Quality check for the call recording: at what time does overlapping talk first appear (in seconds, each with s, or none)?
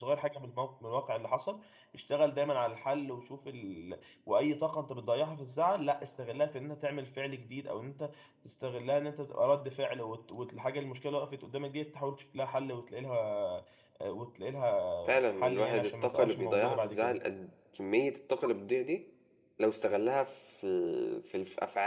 15.0 s